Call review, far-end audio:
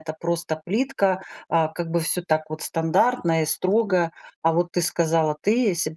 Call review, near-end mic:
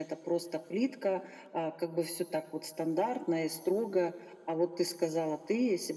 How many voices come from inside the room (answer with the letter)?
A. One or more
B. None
B